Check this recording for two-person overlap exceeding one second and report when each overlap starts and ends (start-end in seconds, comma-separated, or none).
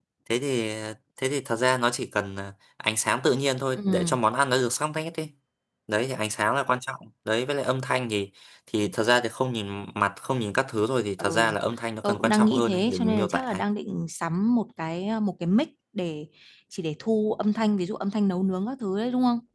12.0-13.6